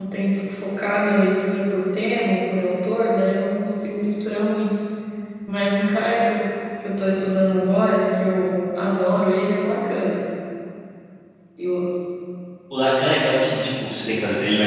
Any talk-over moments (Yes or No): No